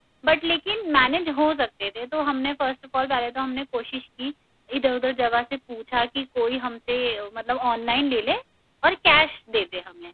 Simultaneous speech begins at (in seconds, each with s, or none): none